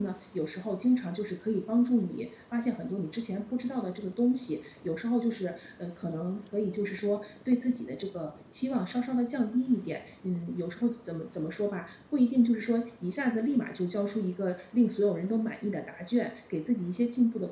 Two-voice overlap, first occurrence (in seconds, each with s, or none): none